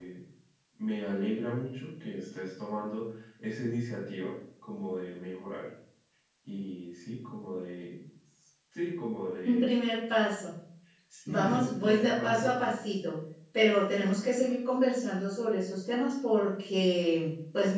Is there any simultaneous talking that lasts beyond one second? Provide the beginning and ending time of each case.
11.3-12.5

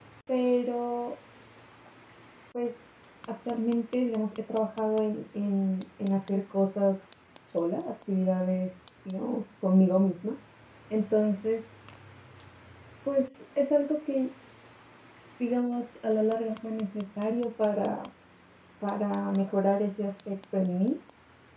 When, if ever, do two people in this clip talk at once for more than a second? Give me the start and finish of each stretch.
none

